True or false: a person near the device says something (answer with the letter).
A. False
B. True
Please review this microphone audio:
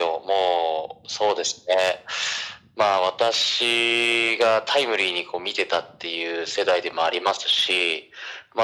A